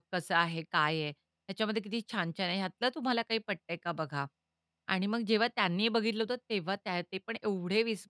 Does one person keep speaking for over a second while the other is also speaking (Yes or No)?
No